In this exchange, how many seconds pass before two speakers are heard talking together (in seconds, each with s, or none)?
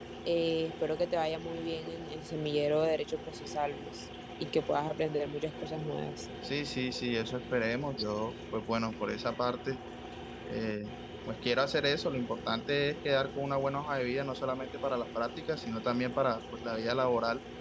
none